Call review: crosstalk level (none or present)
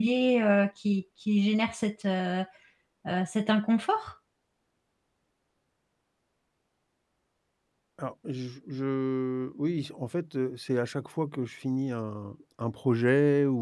none